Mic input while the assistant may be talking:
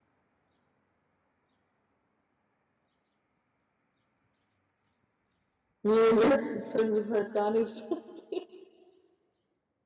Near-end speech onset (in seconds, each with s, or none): 5.8 s